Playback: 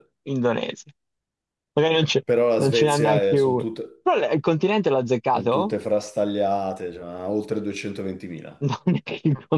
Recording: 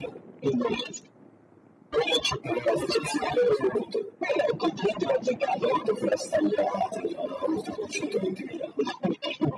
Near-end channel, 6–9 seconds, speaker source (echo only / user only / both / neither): echo only